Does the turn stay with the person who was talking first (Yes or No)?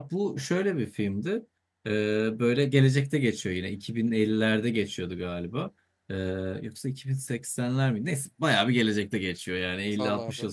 Yes